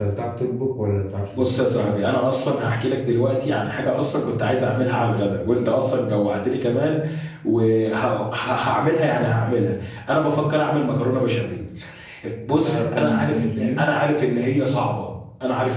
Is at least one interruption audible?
Yes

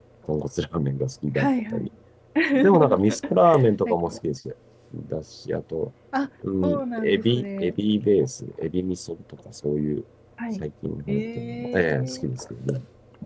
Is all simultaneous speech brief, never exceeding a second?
No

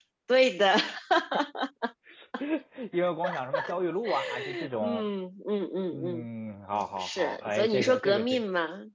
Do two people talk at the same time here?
Yes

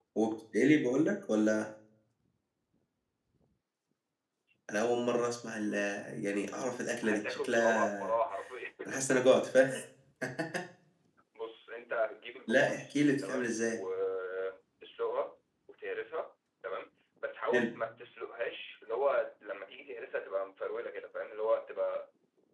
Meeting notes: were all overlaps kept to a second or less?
No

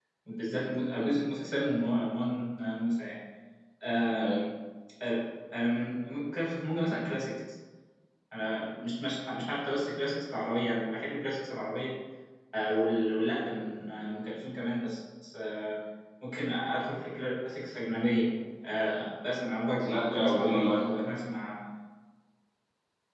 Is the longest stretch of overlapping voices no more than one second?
No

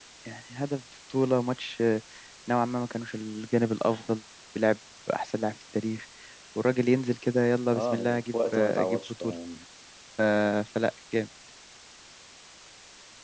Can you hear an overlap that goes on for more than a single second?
Yes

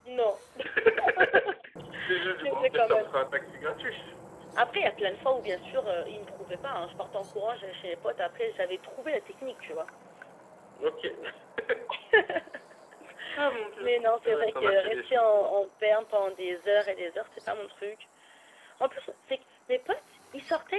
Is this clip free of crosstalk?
No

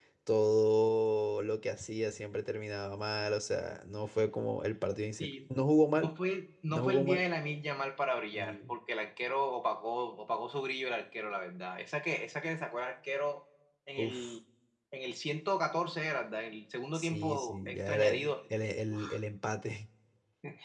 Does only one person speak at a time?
No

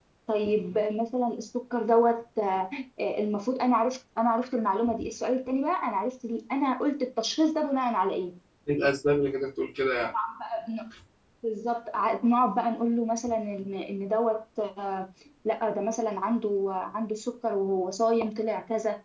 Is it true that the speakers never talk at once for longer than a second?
Yes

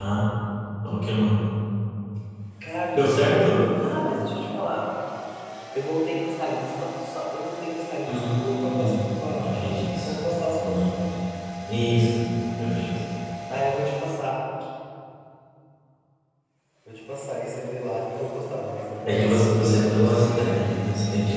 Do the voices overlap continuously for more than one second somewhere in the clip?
Yes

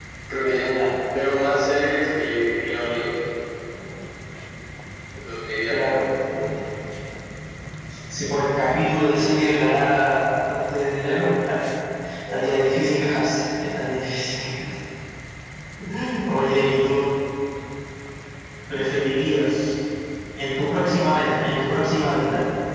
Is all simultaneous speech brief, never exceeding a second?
Yes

